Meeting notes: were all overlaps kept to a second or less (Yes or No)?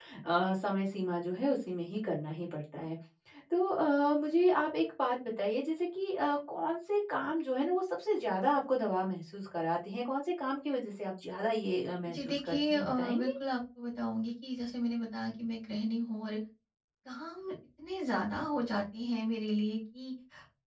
No